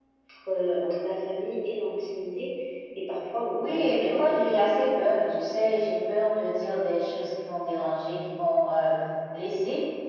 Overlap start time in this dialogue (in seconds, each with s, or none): 3.6 s